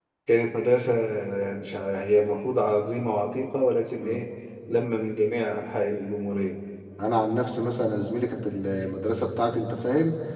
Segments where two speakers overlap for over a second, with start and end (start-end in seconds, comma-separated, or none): none